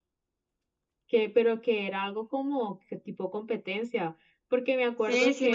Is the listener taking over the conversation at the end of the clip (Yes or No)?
Yes